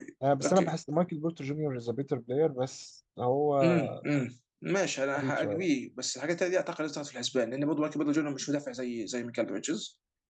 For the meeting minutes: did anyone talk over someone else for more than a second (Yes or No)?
No